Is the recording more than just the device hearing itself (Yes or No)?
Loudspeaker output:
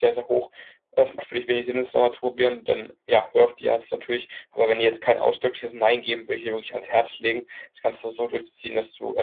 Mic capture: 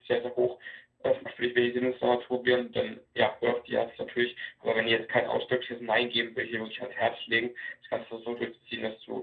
No